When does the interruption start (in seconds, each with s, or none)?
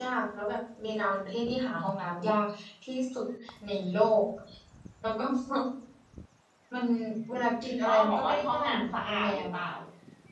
7.8 s